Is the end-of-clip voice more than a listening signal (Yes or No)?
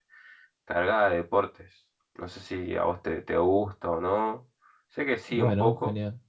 Yes